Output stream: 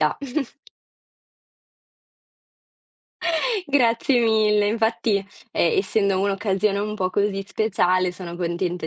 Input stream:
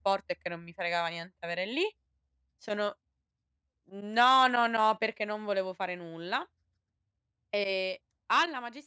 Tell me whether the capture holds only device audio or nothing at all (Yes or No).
No